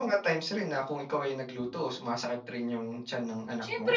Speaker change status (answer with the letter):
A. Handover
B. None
A